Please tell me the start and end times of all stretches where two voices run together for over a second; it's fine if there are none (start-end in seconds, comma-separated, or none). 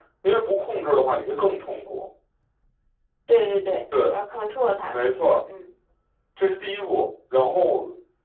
none